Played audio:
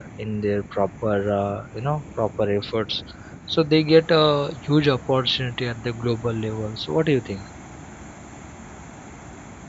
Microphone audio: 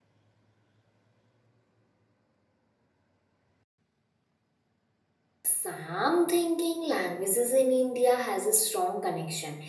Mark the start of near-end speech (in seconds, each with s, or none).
5.4 s